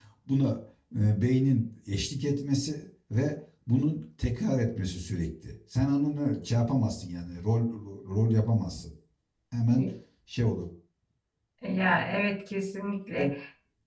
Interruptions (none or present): none